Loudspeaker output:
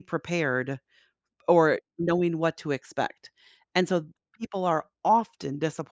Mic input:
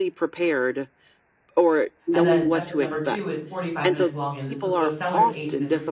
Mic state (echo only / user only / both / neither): both